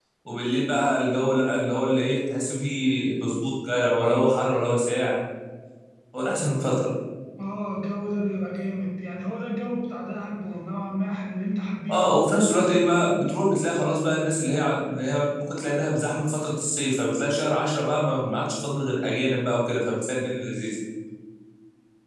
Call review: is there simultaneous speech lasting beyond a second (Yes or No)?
No